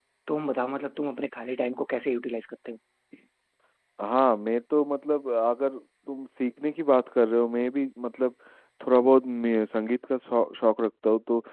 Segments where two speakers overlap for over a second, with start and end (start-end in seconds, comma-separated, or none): none